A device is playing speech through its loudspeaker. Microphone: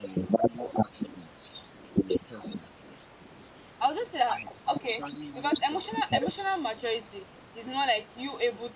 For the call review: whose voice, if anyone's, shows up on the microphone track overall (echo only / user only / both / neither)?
both